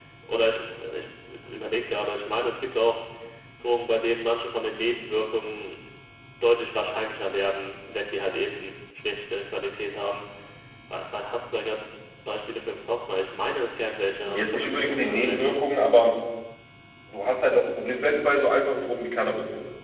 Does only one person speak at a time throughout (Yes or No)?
No